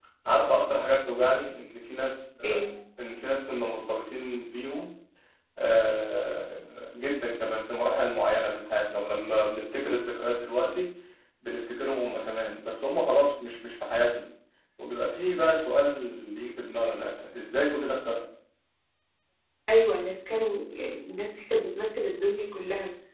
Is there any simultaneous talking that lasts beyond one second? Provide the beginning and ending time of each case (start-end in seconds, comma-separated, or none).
none